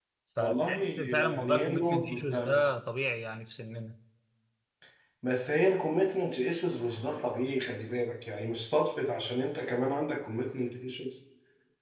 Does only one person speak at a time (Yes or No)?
No